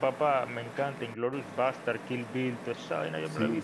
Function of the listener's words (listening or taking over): taking over